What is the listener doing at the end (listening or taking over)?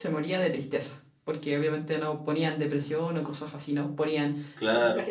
listening